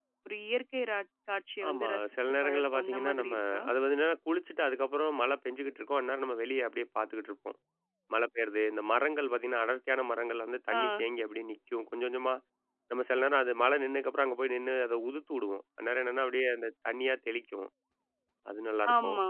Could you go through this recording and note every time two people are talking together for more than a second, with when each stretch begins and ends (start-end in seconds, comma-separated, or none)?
1.7-3.6